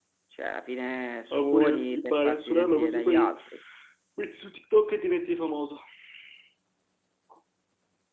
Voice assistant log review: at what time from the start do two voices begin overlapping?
1.3 s

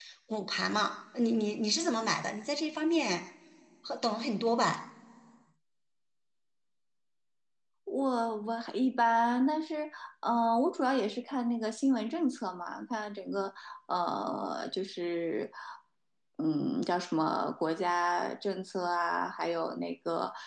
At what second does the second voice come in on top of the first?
none

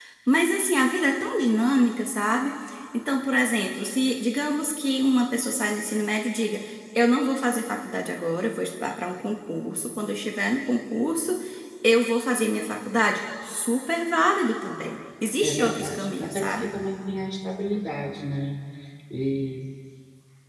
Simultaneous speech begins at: 15.4 s

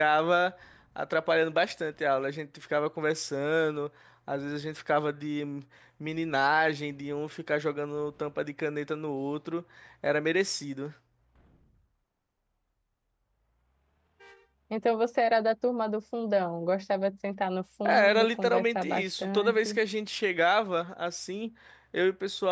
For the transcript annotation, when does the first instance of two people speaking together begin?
17.9 s

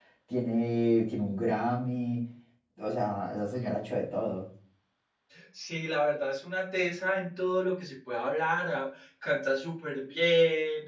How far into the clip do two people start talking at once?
none

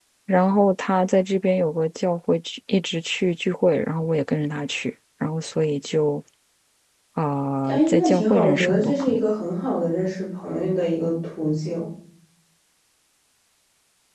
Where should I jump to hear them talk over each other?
7.6 s

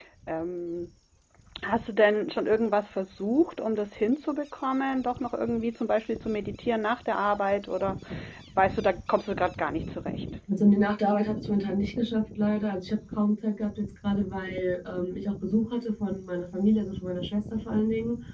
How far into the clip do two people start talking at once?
none

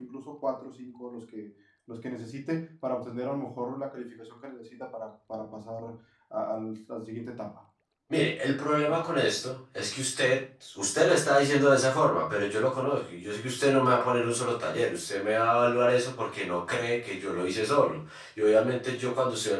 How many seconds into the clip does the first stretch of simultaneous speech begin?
none

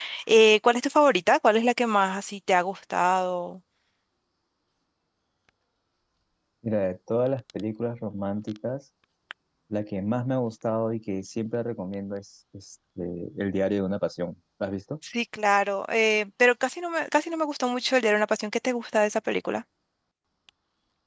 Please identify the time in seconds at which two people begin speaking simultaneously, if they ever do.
none

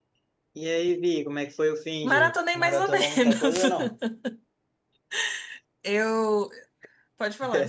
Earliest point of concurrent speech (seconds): 2.0 s

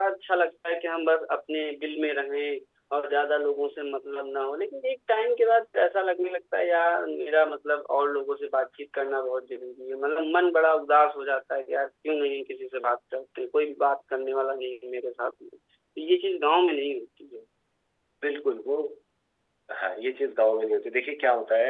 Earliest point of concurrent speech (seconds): none

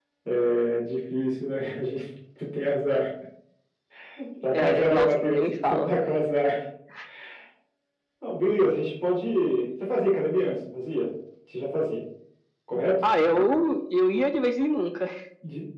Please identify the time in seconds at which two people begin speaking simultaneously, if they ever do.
4.5 s

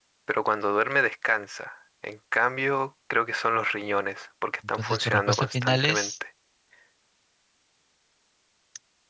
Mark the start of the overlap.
4.6 s

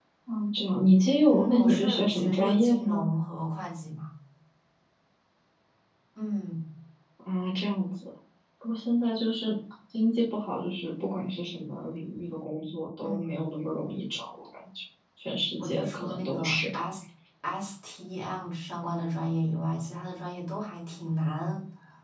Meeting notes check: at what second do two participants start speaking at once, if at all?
1.3 s

